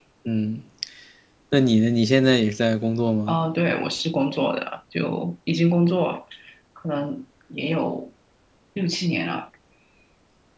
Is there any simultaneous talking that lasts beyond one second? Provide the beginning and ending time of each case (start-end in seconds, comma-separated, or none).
none